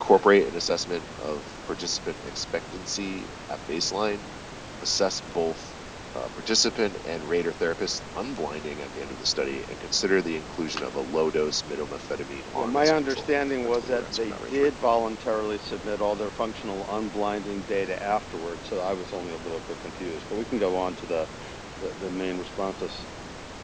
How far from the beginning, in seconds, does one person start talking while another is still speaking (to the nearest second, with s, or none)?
13 s